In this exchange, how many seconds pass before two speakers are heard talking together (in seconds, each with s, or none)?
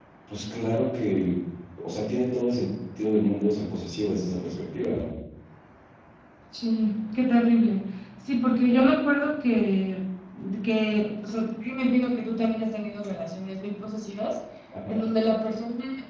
none